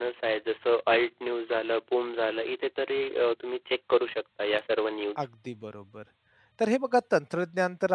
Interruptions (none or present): none